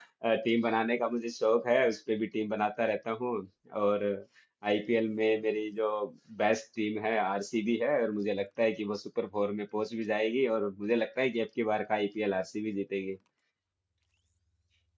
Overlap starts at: none

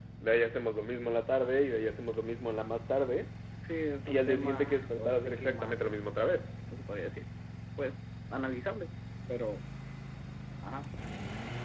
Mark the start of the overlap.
4.0 s

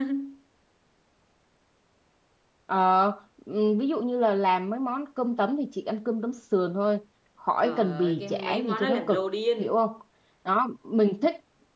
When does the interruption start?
7.6 s

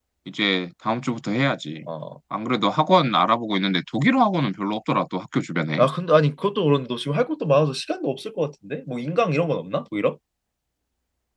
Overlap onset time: none

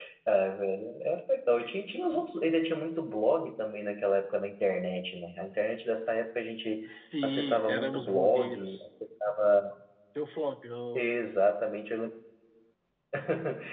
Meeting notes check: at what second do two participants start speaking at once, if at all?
7.2 s

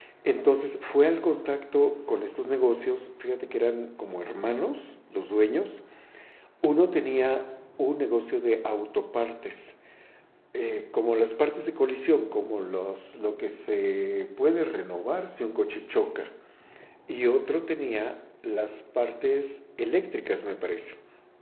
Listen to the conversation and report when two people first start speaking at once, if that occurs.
none

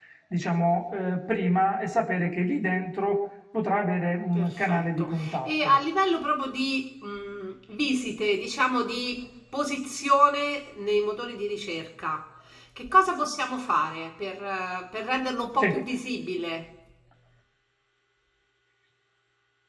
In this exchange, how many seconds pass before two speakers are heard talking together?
4.3 s

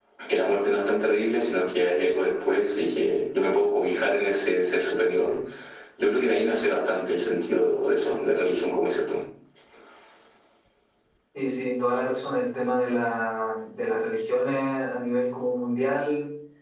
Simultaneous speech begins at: none

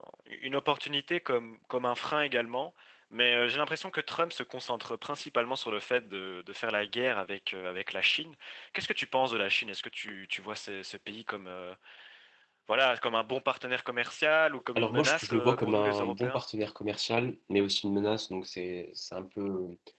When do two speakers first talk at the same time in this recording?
14.8 s

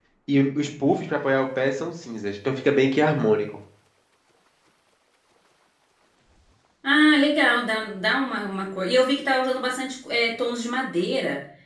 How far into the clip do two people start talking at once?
none

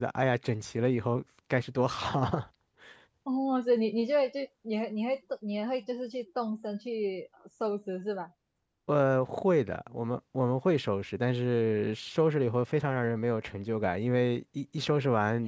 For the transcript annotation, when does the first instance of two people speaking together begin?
none

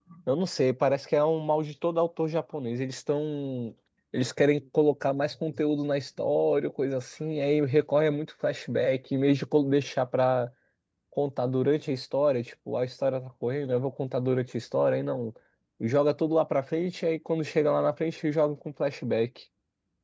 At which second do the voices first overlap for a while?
none

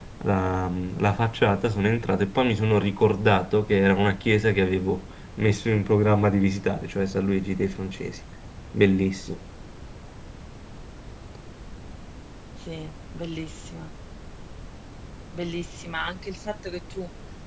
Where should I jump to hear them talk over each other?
none

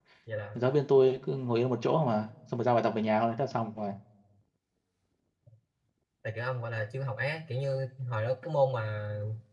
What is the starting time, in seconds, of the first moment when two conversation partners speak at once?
none

